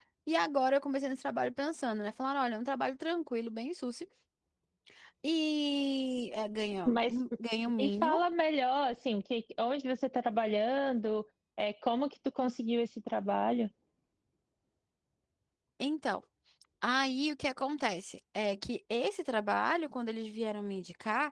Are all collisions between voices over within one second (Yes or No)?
Yes